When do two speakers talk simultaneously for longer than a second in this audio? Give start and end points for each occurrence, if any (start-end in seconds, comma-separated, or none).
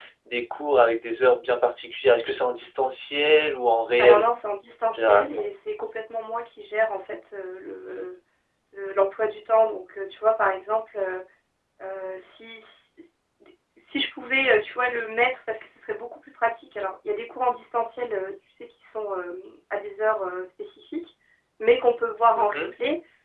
none